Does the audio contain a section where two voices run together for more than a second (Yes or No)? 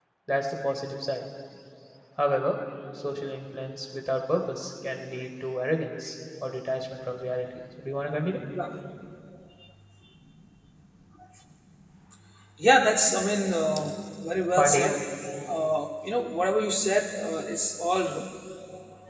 No